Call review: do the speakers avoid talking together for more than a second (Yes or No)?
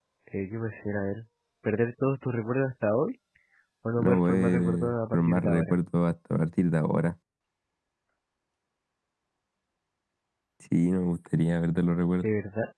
No